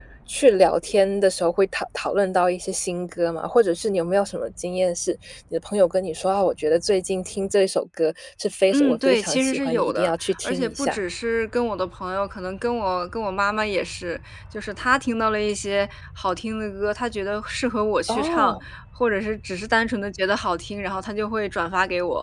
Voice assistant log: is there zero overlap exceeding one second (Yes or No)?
No